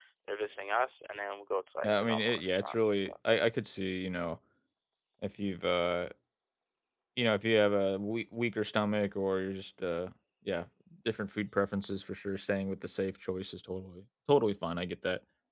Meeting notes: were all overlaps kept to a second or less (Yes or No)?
No